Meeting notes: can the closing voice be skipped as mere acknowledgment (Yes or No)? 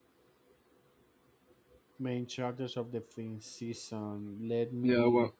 No